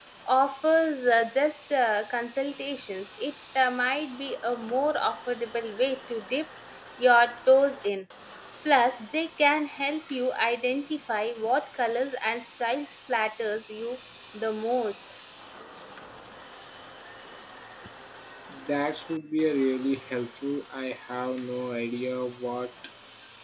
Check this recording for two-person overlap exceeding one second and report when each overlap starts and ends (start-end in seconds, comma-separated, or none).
none